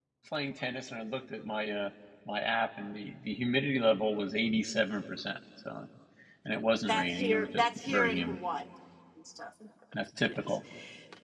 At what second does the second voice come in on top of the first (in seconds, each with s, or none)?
6.9 s